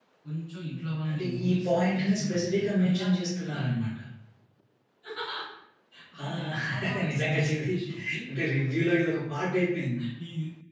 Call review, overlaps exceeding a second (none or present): present